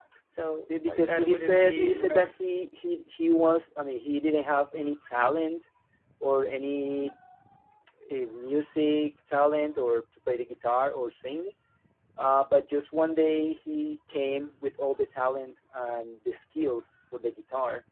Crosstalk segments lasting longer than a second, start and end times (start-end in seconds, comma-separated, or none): 0.8-2.3